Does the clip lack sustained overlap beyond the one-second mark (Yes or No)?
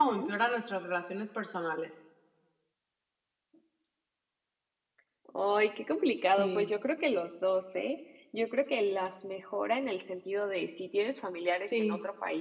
Yes